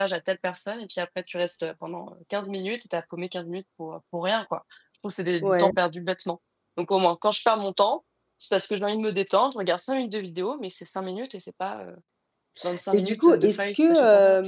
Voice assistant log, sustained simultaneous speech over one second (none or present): present